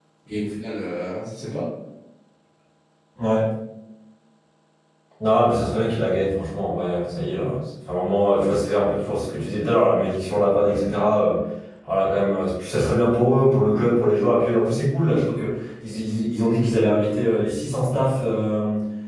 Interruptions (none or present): none